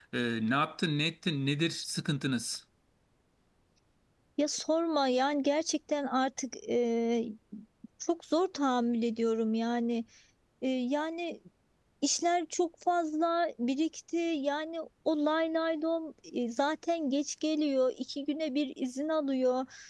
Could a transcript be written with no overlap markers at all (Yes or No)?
Yes